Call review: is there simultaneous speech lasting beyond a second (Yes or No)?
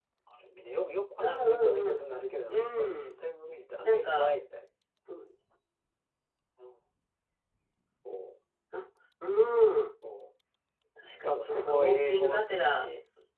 Yes